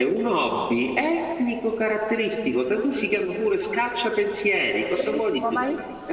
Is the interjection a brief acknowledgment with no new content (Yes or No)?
No